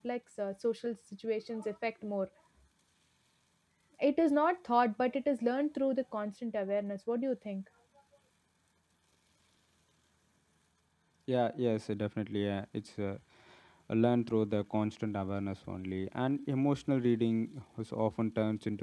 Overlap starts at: none

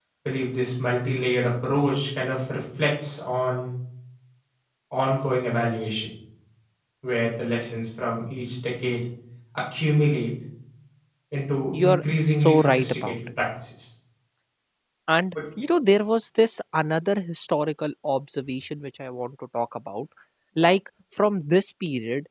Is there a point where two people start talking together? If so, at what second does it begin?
11.8 s

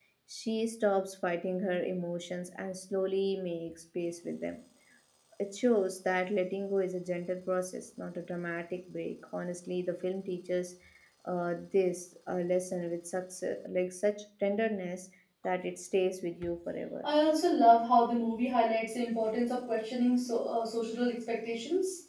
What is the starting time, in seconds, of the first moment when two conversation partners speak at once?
none

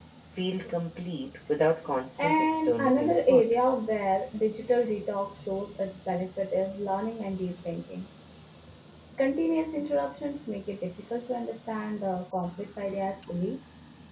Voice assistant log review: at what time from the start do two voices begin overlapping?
2.2 s

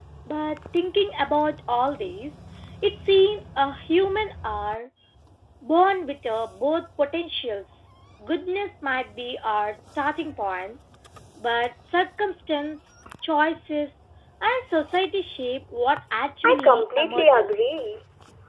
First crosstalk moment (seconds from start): 16.4 s

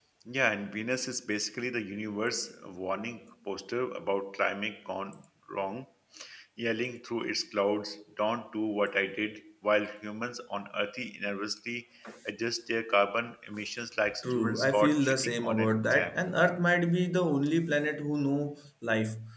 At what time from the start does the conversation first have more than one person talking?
14.2 s

